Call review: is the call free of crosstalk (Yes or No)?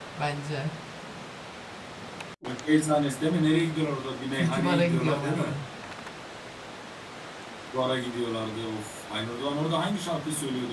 No